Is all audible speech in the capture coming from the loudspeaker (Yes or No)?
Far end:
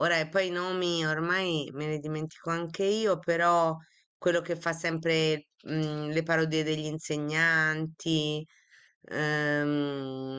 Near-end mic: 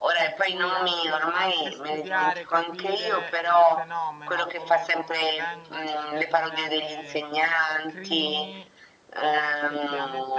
No